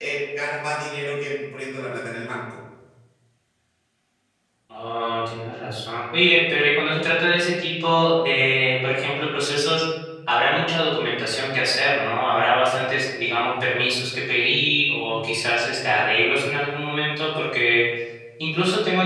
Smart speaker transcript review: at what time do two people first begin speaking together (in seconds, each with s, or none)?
none